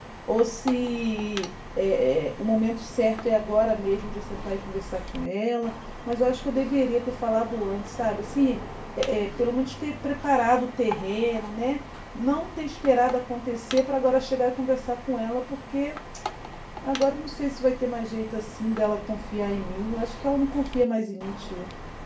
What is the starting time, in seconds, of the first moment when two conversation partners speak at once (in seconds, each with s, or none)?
none